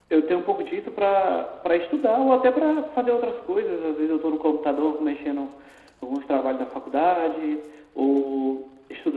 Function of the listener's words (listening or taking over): listening